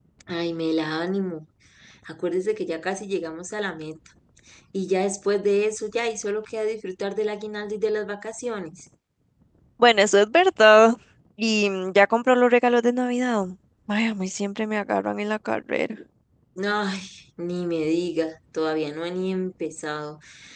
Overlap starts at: none

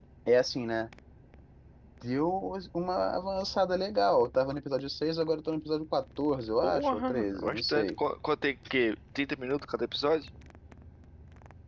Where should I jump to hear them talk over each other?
7 s

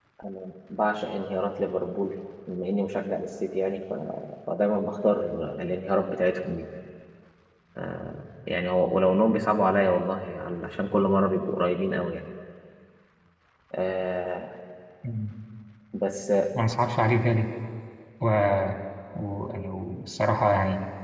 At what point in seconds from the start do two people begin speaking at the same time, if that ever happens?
none

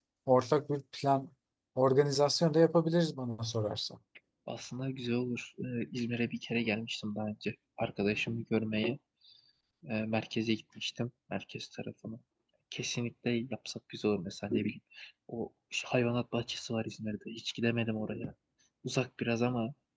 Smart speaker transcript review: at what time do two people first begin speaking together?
none

